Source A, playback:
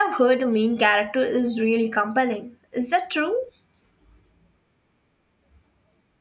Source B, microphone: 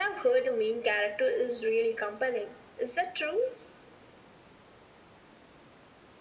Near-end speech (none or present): none